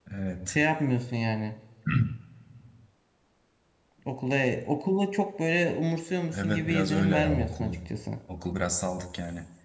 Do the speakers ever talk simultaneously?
Yes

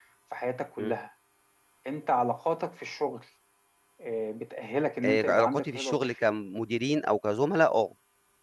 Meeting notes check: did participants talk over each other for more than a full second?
Yes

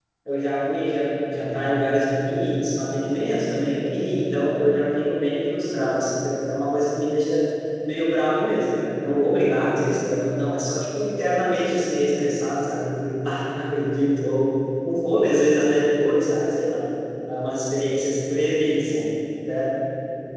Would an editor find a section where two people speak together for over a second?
No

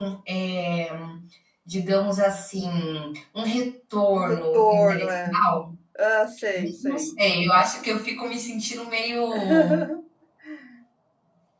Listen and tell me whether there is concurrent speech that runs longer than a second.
Yes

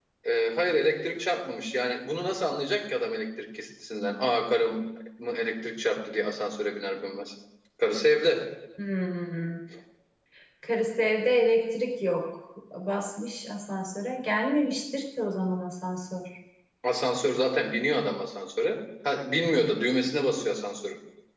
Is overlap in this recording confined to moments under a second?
Yes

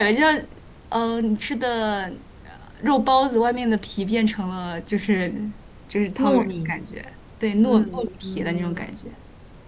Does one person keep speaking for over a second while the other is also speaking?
Yes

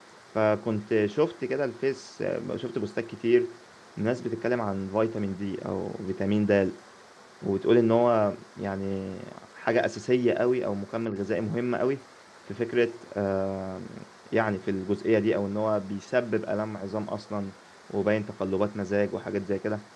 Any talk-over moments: No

